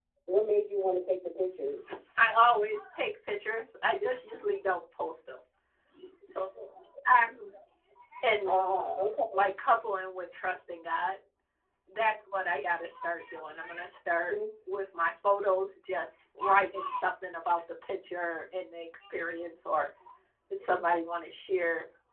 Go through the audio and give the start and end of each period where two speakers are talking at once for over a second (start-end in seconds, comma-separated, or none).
none